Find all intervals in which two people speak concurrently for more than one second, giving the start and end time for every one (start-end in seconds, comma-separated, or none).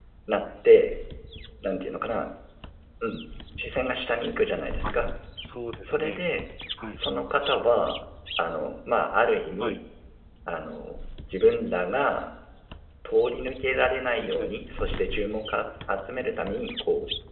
none